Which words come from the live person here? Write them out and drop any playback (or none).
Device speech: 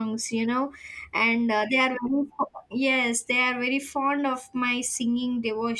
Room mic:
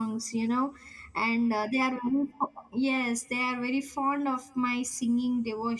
none